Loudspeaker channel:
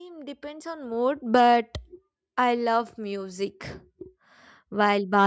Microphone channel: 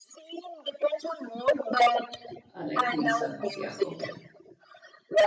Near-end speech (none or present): present